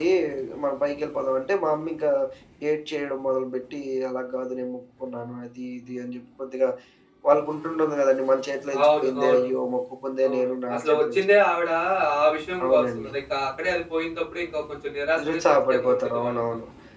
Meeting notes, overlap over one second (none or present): present